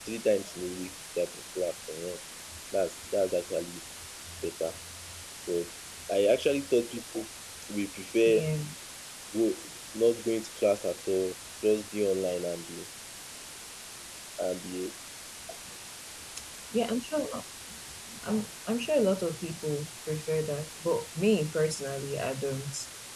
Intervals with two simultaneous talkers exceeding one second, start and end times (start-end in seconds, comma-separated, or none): none